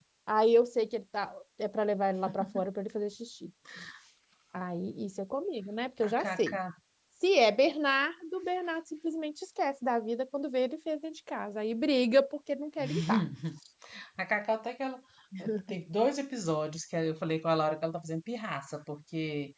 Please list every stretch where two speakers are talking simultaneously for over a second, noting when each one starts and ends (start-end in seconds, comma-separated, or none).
none